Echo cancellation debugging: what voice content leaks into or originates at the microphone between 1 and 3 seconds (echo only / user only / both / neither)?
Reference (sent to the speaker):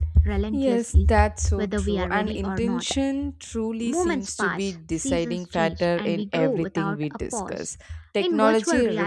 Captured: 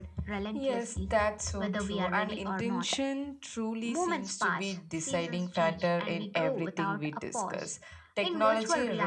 echo only